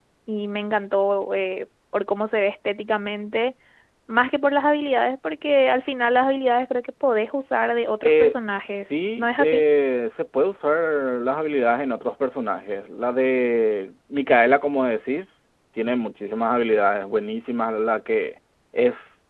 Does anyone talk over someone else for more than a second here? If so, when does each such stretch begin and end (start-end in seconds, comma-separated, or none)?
8.0-9.6